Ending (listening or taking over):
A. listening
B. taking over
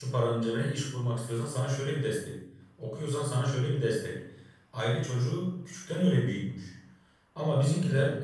A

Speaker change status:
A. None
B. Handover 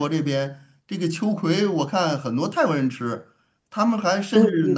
A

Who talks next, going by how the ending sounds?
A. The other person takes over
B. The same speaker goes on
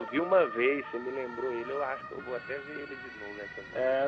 A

